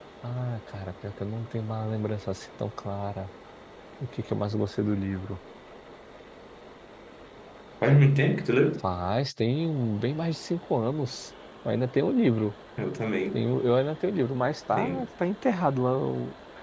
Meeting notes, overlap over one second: none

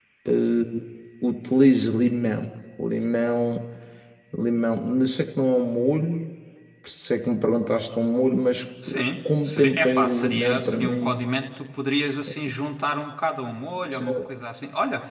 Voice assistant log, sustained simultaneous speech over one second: present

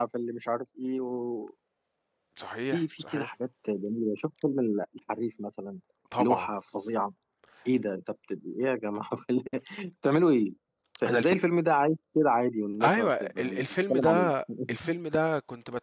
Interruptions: present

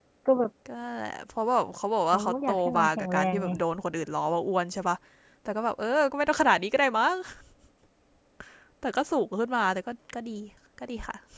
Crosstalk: present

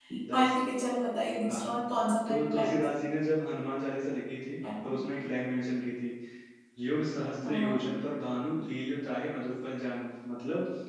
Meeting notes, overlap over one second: none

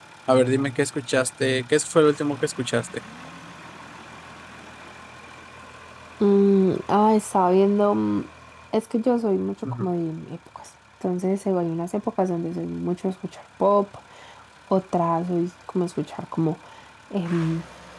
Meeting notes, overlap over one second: none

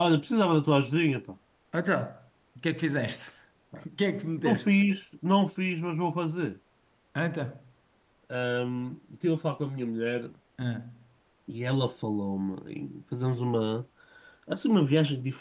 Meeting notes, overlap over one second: none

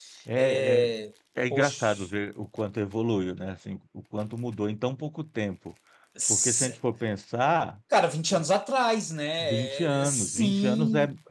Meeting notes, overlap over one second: present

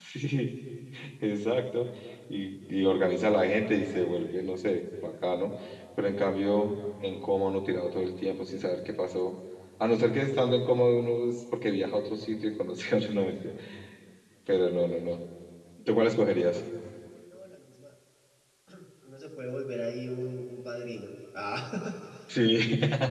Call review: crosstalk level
none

